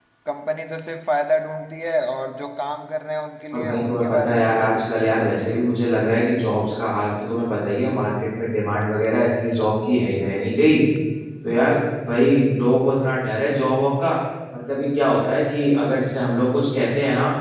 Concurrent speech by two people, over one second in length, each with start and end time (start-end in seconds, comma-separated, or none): 3.5-5.6